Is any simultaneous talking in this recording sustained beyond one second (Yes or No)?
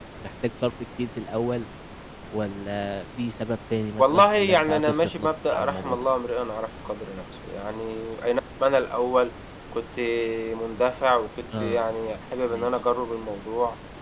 Yes